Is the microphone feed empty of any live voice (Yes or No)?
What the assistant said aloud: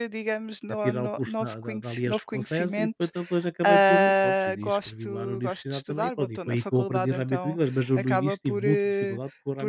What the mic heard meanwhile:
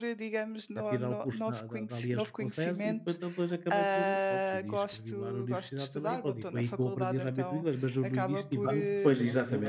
No